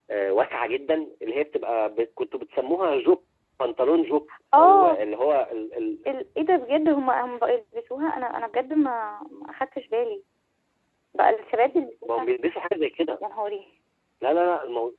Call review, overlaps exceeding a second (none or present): none